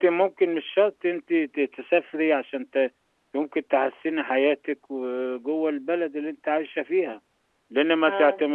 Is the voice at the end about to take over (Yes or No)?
No